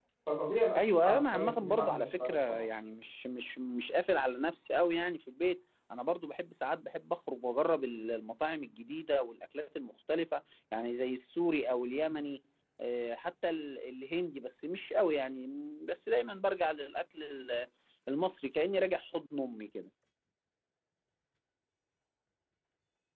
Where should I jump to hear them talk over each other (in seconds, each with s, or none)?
0.8 s